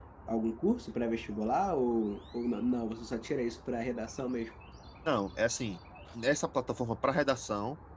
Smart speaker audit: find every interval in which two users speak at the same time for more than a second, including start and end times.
none

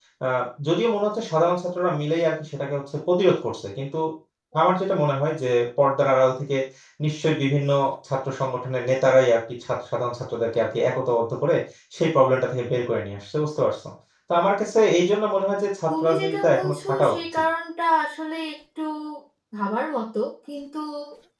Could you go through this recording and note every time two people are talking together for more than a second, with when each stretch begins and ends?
15.9-17.4

